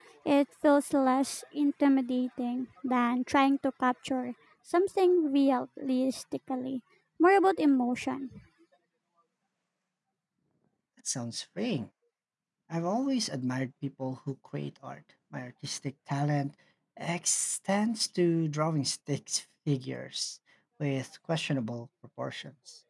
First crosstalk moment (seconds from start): none

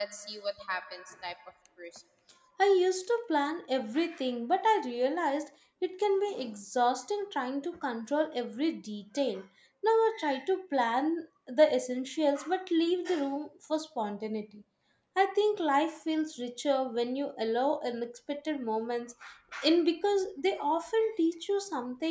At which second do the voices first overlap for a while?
none

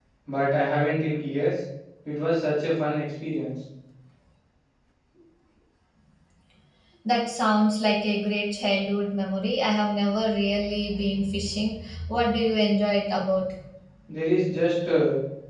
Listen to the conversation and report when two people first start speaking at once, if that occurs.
none

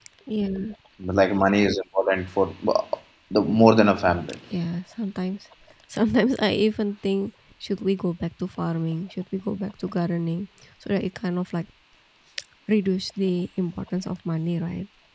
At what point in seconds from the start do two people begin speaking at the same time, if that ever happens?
none

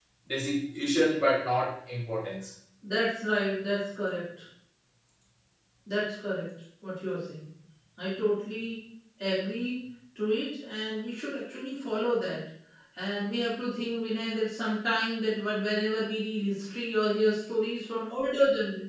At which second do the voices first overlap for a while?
none

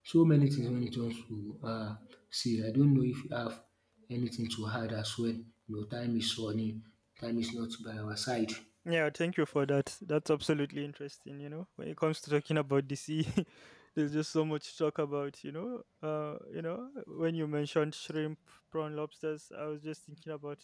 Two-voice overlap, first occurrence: none

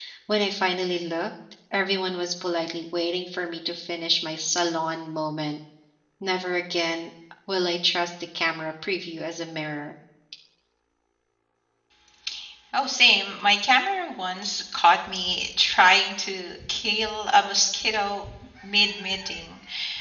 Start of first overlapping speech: none

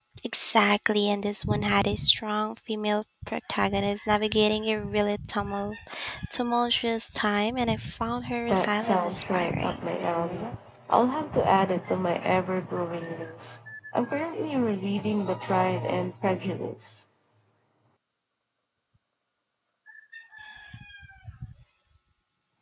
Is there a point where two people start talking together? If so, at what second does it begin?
8.5 s

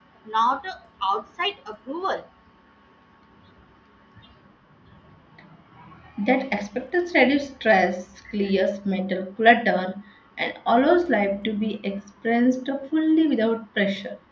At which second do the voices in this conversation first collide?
none

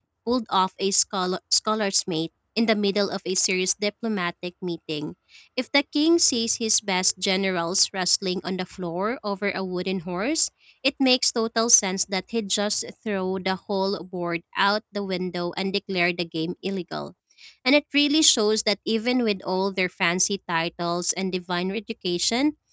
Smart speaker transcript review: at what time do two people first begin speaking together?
none

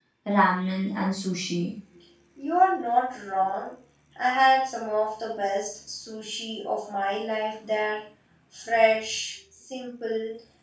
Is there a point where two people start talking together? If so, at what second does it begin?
none

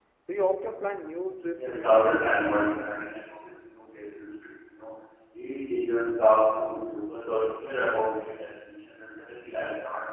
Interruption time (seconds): 1.6 s

